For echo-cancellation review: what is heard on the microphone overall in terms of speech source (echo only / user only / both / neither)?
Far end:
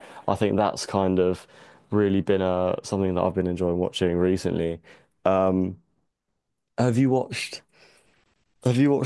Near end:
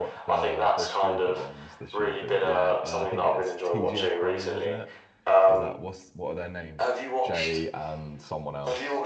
both